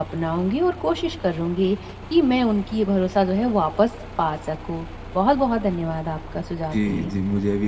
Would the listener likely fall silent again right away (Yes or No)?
No